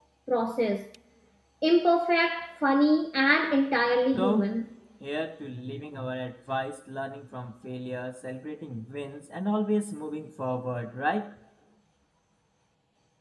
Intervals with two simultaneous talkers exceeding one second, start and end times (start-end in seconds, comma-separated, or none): none